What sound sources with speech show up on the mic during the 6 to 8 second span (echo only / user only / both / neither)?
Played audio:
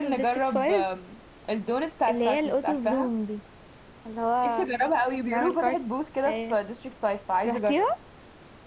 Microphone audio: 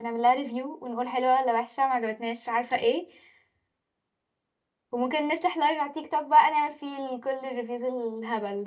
user only